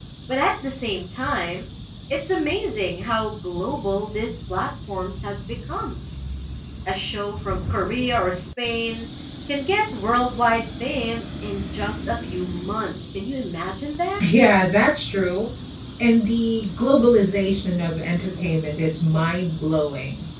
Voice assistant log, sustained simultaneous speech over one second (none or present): none